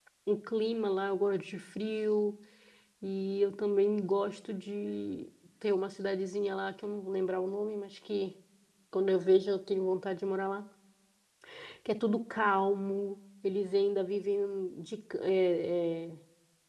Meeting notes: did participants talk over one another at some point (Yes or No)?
No